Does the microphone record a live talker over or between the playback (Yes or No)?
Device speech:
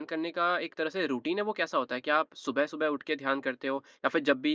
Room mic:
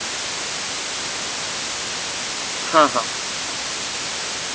Yes